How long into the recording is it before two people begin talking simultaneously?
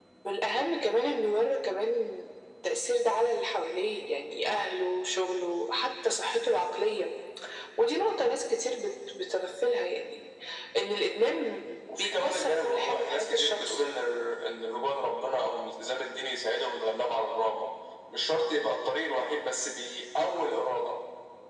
11.9 s

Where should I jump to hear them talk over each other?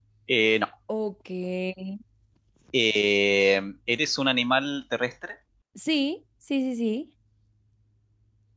none

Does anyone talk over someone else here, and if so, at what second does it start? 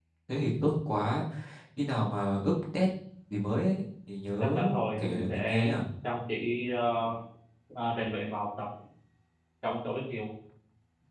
4.4 s

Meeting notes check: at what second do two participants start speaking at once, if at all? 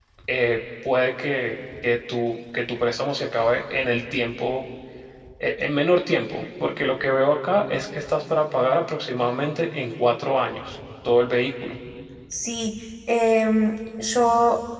none

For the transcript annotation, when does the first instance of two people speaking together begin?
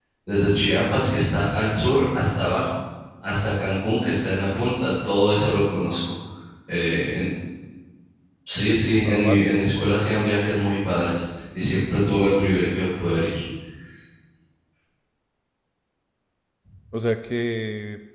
8.6 s

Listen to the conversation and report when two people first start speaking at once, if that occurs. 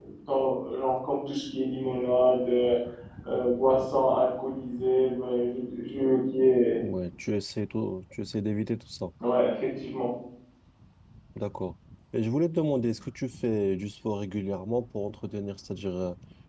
none

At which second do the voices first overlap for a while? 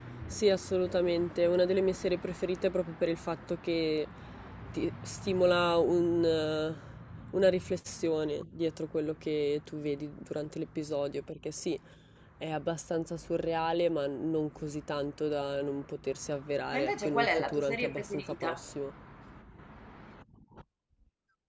16.7 s

